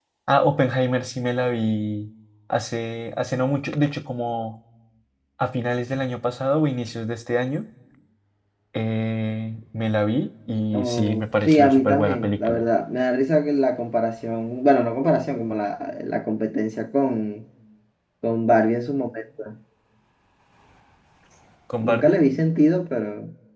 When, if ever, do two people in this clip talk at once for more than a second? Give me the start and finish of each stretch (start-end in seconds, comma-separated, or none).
10.7-12.6